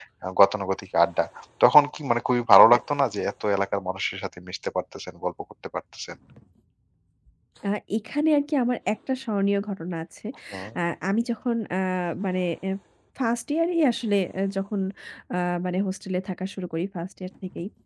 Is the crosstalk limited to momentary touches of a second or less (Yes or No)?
Yes